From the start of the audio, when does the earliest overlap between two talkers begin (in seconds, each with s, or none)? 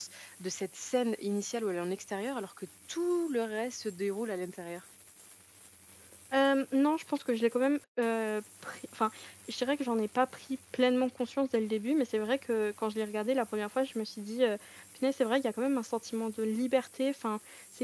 none